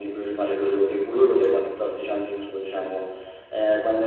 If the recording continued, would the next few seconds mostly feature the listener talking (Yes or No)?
No